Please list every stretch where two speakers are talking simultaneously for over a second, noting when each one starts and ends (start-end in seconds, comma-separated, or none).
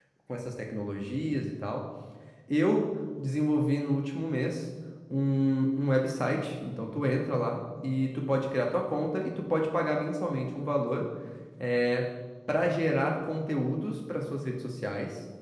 none